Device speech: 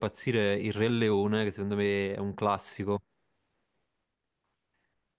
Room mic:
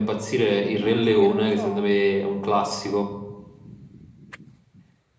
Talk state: both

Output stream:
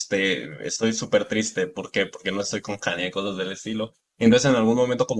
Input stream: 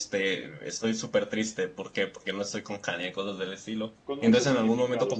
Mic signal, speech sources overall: both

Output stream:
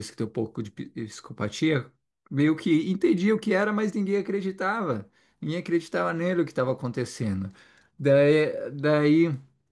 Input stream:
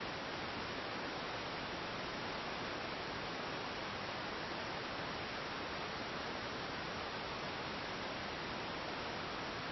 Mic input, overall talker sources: neither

